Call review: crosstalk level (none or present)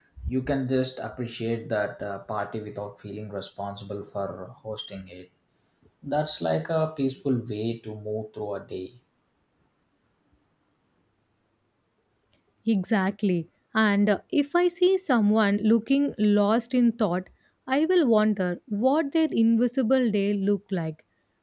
none